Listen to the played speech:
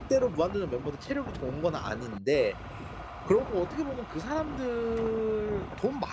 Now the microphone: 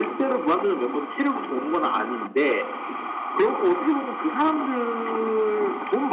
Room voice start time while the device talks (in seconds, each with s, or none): none